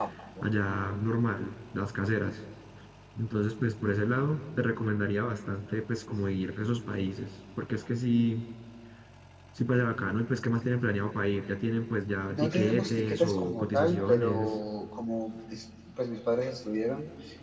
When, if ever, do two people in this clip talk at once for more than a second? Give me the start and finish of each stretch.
12.3-14.6

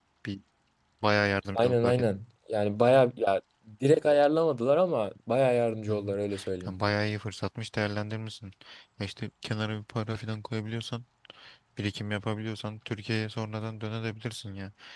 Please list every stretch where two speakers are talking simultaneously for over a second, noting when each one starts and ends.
none

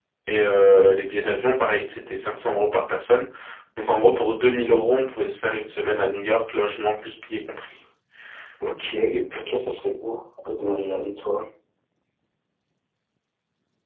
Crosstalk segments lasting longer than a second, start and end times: none

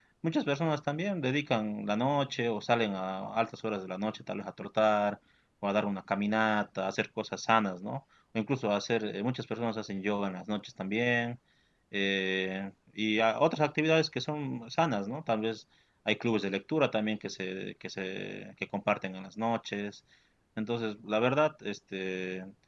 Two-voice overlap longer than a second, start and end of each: none

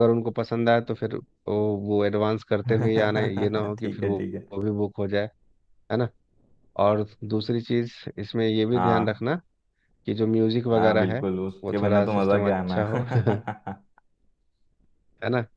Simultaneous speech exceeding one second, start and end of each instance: 2.7-4.2, 11.7-13.3

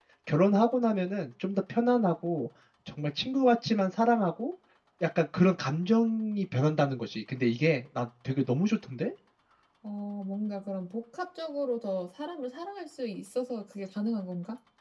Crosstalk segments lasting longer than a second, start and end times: none

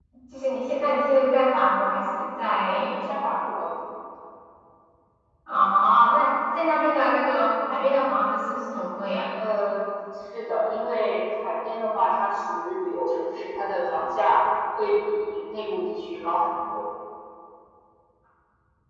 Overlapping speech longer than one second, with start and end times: none

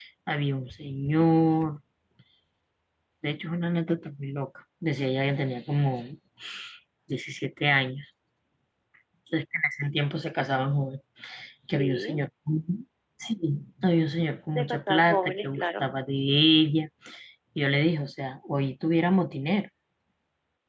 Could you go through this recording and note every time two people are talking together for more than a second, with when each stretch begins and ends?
14.6-15.9

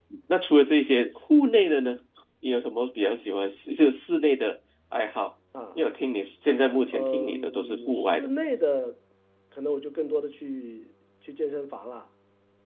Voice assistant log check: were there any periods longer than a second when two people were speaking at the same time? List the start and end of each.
6.9-8.3

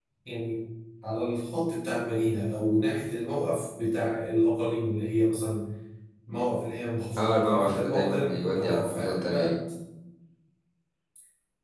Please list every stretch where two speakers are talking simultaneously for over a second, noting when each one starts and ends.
7.2-9.6

